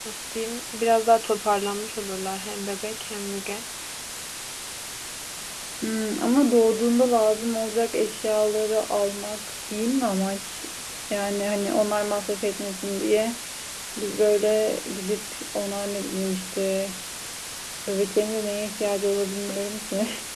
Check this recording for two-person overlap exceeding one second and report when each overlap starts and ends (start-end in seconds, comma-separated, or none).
none